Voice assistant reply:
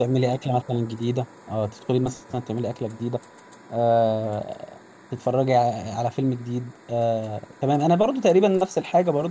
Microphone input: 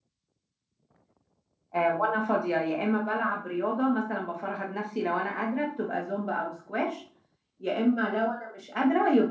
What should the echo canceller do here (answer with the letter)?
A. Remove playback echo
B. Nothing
B